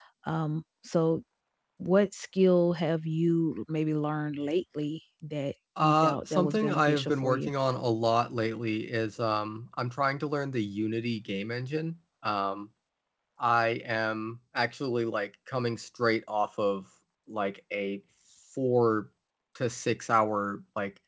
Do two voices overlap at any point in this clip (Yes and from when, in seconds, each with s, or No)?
Yes, from 5.8 s